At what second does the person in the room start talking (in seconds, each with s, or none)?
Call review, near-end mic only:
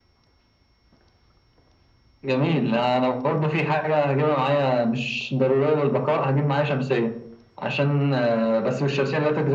none